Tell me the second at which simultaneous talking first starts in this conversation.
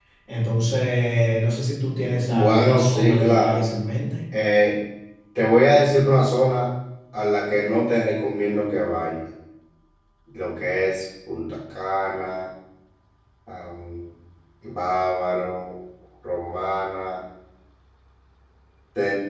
2.3 s

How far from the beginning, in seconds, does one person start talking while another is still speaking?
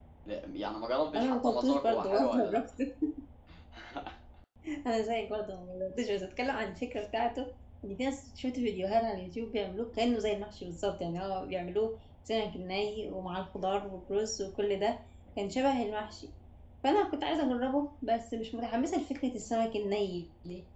1.2 s

